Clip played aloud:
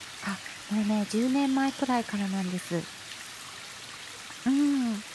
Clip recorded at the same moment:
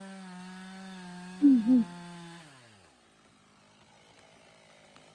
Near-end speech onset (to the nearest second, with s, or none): 1 s